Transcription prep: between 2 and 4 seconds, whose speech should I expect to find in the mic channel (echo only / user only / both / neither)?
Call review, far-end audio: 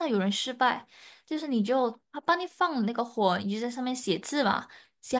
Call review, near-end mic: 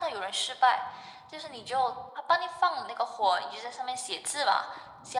echo only